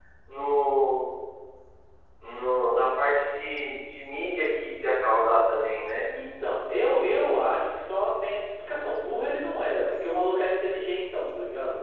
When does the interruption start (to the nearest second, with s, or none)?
none